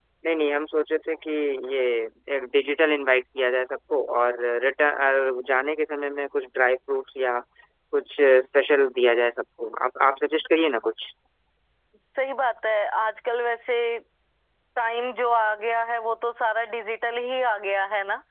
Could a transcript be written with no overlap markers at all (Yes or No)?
Yes